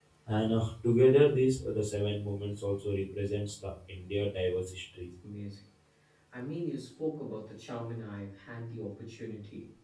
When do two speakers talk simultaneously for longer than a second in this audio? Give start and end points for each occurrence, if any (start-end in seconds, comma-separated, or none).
none